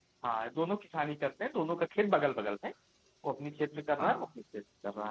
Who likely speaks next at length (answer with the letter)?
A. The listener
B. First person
B